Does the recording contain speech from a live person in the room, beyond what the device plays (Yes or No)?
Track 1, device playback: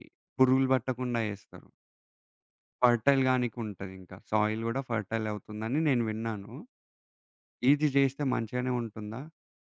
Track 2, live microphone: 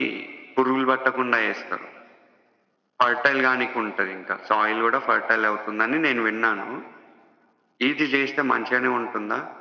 No